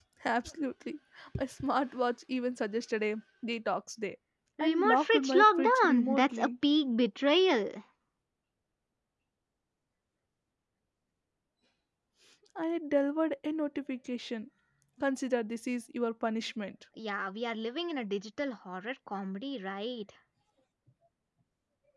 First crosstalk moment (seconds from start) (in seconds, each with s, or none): 4.6 s